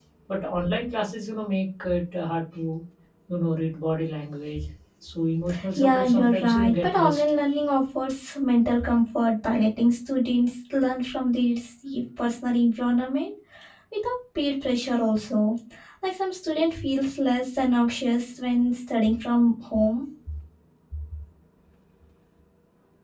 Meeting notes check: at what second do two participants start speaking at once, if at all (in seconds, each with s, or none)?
5.8 s